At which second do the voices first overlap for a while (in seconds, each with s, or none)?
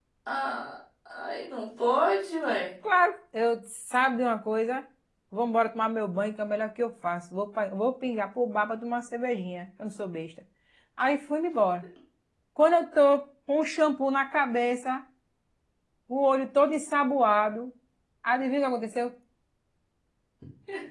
none